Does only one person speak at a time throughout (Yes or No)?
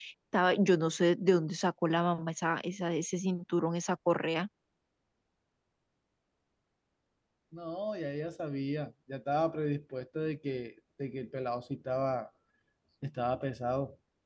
Yes